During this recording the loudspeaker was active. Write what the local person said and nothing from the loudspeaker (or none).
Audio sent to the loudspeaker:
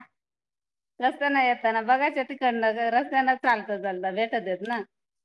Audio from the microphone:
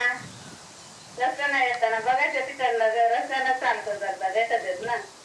none